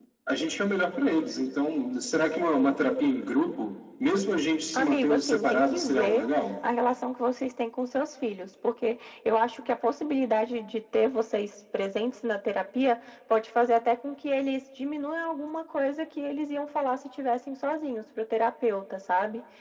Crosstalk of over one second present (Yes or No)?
Yes